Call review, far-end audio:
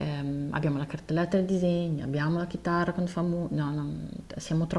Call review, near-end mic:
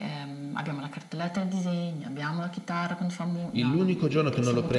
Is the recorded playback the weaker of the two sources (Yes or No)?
Yes